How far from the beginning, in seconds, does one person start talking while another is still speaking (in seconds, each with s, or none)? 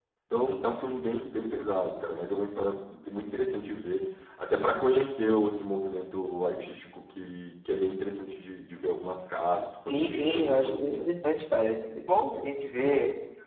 9.9 s